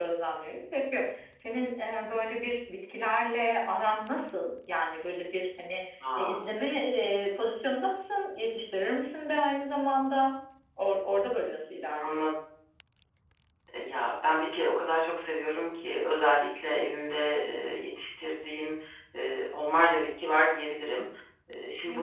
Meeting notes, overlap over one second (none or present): none